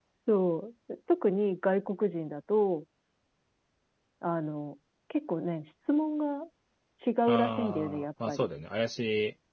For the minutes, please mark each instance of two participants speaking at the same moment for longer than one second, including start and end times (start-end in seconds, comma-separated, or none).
7.3-8.5